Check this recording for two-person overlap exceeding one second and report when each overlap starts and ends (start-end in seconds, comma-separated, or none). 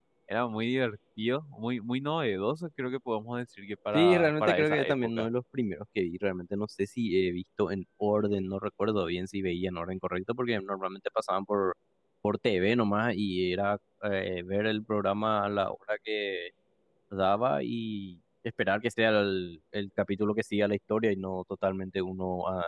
3.9-5.3